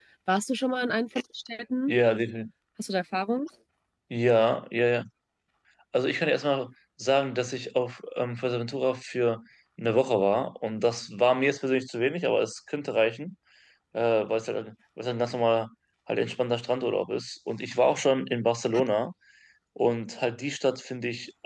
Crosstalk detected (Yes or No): No